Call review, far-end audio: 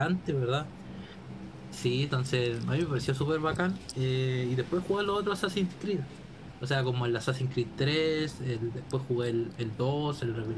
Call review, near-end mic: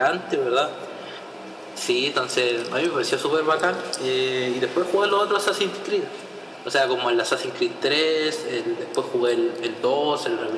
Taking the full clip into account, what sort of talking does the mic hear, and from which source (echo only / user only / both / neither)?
echo only